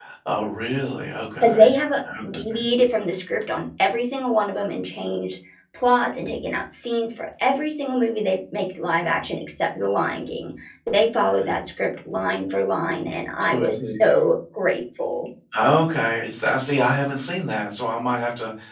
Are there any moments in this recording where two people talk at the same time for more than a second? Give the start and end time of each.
none

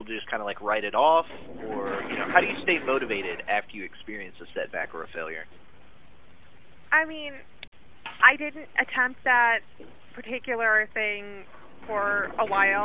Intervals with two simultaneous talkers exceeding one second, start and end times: none

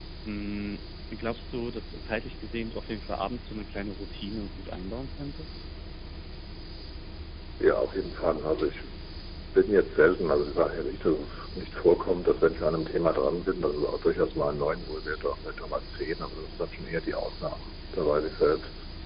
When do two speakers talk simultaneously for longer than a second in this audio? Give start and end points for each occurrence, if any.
none

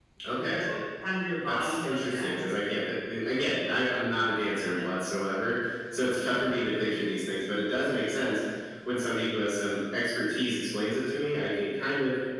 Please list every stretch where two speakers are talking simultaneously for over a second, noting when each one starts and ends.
1.5-2.7

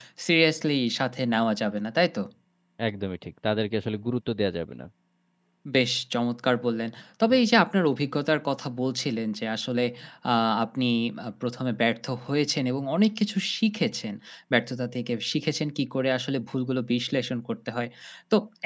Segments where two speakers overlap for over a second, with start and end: none

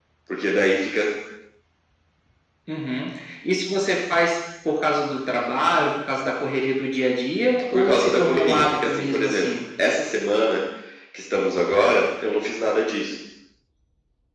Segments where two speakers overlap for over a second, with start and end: 7.7-9.6

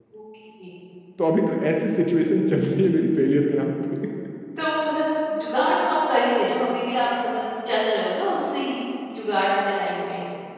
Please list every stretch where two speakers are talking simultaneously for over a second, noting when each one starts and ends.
none

